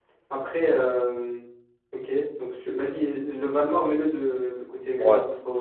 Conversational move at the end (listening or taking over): listening